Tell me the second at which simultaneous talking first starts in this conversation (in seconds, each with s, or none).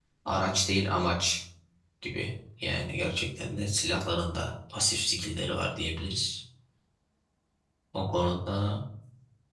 none